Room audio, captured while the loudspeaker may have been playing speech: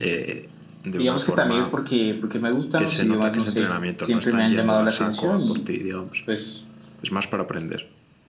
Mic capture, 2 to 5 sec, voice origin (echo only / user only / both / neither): both